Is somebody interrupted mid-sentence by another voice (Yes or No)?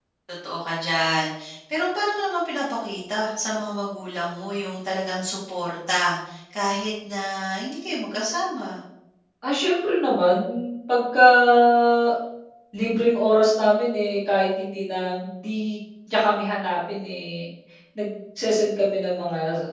No